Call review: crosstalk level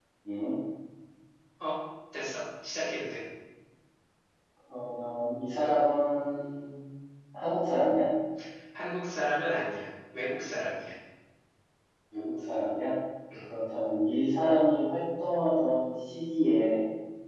none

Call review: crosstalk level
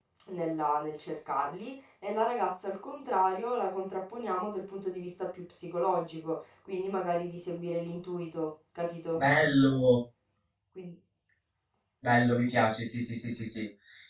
none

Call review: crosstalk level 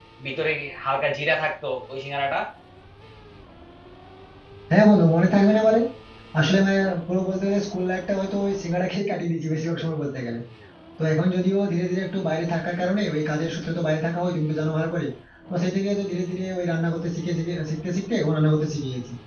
none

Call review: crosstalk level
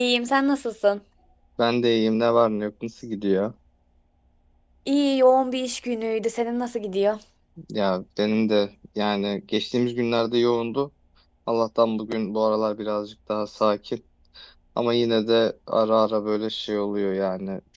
none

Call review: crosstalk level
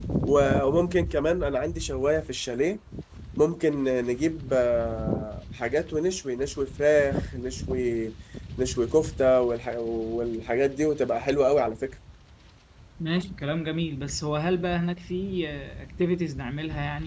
none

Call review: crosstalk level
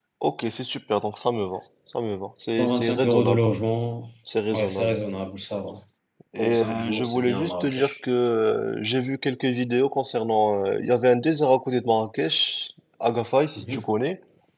present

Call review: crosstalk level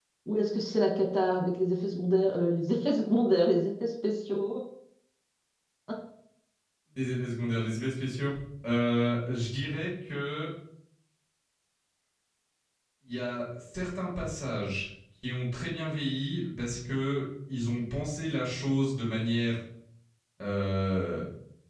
none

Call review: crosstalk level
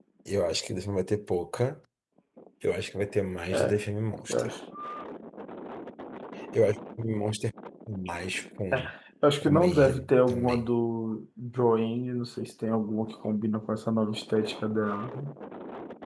present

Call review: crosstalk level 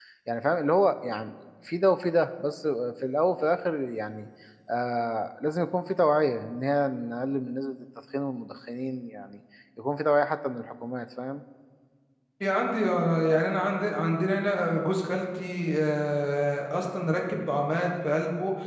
none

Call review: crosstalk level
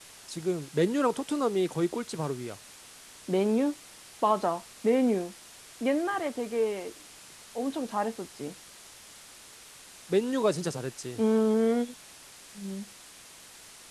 none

